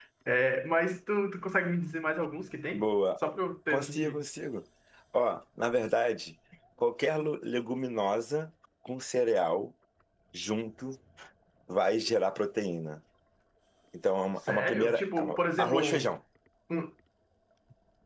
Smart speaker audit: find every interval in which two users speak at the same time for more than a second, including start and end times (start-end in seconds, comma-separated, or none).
14.5-16.1